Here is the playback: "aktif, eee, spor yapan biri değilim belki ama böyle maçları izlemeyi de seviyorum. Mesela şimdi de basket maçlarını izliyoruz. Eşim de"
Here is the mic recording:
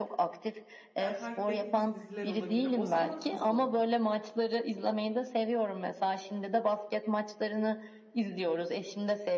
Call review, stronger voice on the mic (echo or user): echo